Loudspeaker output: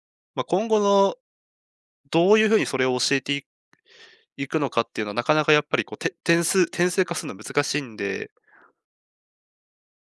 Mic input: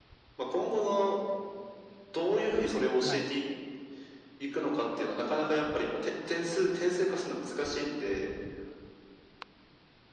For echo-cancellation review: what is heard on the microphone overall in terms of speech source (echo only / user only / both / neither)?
both